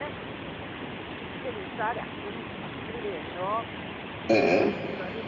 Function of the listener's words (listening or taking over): listening